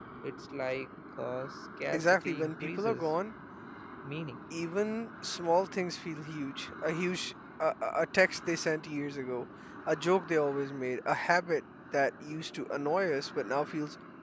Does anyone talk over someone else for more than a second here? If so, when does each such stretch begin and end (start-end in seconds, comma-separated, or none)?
1.9-3.1